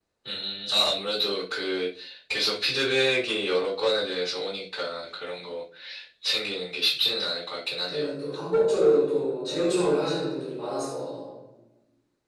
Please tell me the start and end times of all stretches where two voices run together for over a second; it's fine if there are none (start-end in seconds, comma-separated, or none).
none